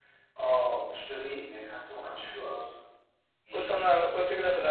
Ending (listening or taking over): taking over